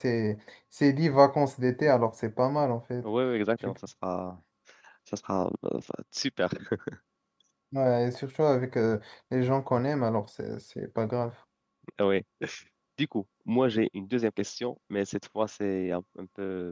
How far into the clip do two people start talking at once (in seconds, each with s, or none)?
none